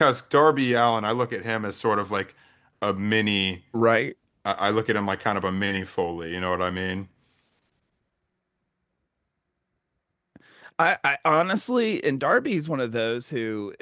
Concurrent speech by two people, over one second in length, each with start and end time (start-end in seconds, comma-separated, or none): none